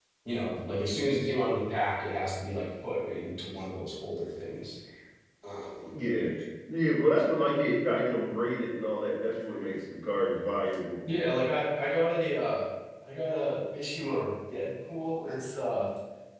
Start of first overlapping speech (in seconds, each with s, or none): none